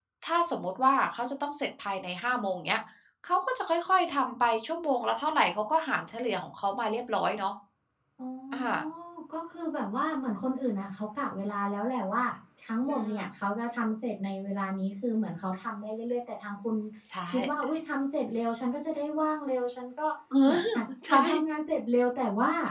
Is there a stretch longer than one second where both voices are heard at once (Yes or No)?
No